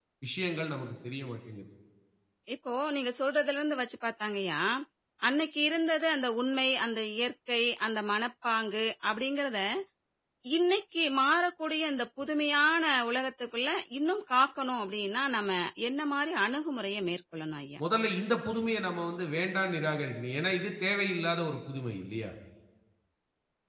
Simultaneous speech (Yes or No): No